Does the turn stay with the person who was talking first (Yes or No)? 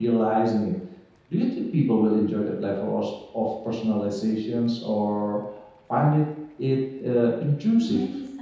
No